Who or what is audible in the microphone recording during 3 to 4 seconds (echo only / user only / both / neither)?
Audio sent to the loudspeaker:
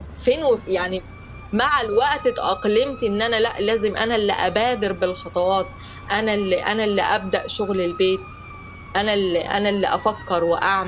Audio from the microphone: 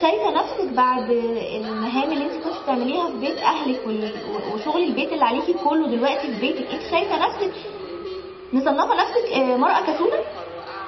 both